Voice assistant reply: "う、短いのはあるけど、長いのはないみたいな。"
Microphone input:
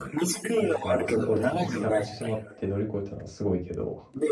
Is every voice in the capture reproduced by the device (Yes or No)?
No